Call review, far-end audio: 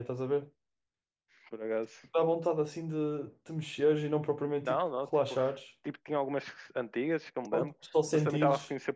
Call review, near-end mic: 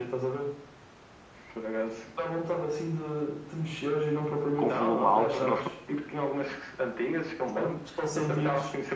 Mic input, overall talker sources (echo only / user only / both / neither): both